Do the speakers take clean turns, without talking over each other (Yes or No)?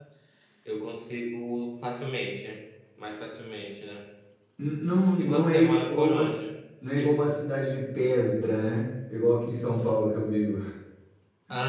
No